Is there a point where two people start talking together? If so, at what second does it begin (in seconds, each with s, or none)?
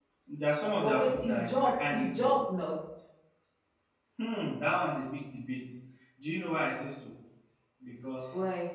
0.8 s